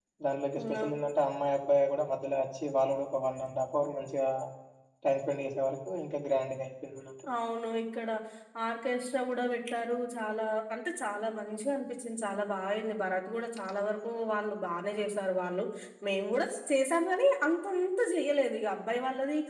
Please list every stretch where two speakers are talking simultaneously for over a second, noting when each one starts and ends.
none

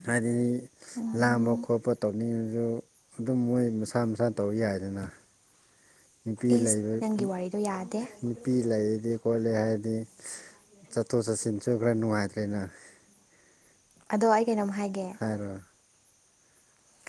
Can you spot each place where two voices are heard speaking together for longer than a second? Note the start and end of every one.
none

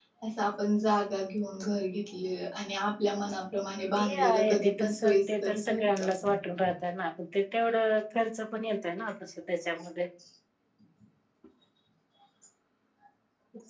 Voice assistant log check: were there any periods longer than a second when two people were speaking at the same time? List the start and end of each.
4.0-6.0

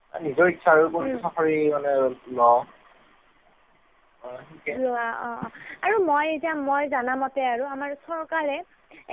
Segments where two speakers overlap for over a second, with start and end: none

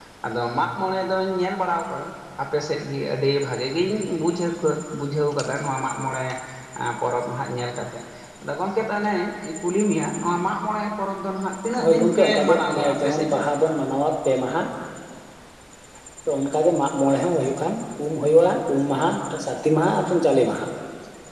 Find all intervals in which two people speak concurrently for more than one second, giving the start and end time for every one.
11.8-13.4

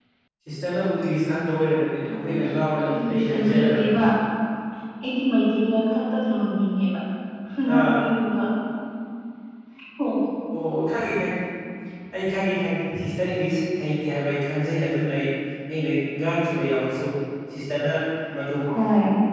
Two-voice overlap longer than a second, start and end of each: 2.8-4.0

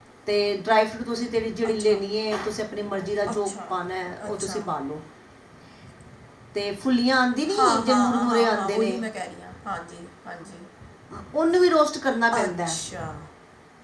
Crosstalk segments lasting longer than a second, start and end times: 7.6-9.0

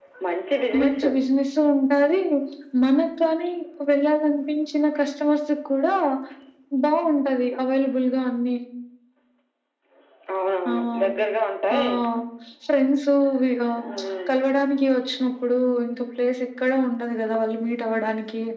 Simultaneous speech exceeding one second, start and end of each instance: none

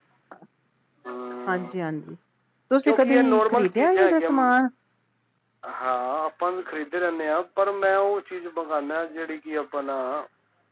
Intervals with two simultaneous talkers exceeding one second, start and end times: 2.8-4.3

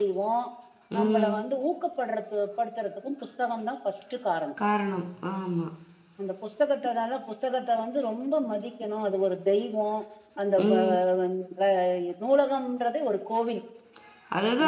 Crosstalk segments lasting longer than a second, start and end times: none

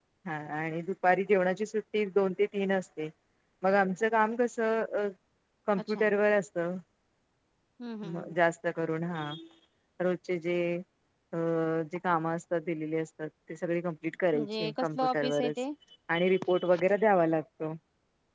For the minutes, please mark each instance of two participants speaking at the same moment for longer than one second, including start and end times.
14.3-15.5

